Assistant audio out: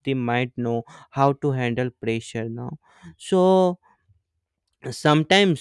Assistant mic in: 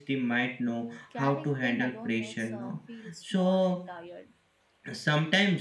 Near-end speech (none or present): present